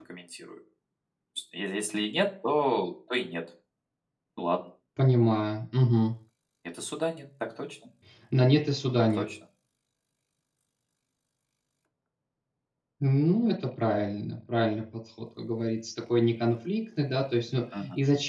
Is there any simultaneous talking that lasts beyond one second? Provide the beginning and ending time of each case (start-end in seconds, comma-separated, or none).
none